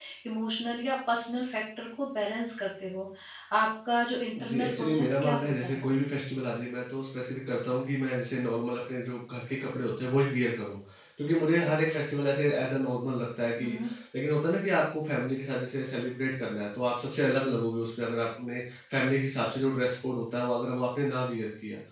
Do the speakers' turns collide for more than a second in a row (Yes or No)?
Yes